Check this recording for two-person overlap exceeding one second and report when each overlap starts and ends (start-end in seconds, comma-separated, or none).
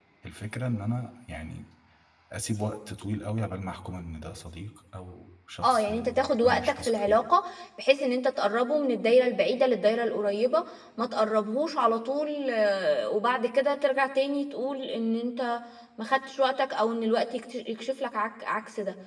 5.6-7.2